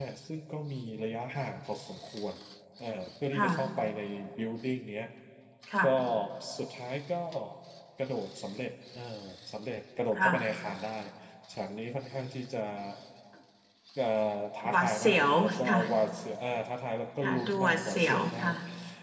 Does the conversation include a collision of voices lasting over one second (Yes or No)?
Yes